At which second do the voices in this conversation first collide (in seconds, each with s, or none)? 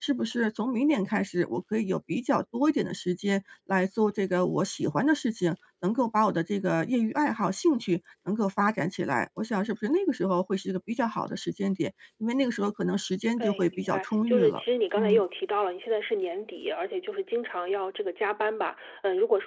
13.4 s